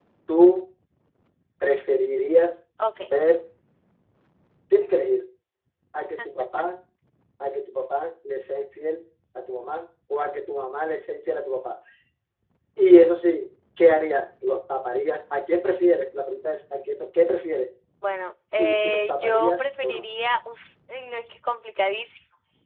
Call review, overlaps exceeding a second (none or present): present